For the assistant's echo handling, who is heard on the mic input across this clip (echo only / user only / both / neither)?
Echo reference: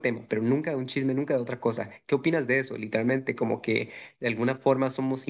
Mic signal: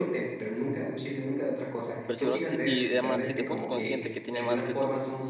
both